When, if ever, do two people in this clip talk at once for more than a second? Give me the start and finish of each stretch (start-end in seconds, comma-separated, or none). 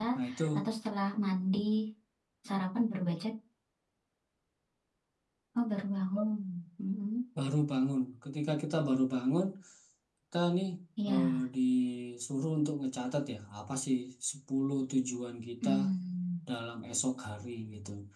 none